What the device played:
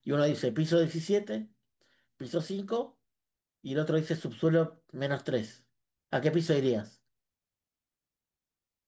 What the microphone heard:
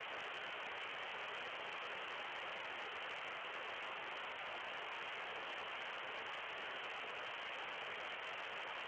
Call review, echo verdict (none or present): none